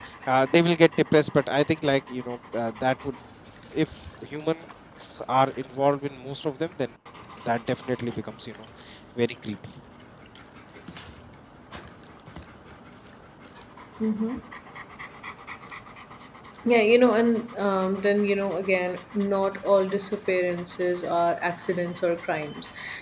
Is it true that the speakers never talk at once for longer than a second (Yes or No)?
Yes